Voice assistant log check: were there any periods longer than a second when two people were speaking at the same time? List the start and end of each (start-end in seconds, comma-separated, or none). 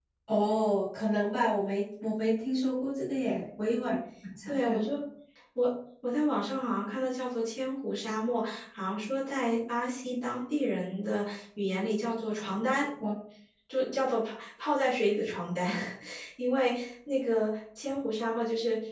none